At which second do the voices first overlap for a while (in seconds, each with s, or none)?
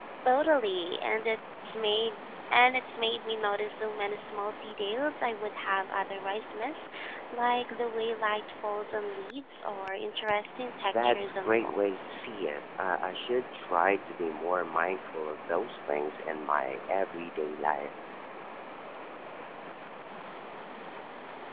10.8 s